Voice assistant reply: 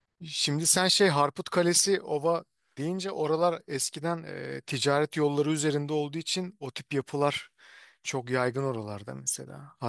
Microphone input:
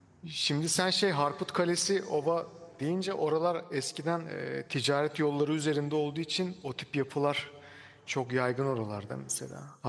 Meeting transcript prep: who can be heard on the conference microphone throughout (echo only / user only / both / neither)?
echo only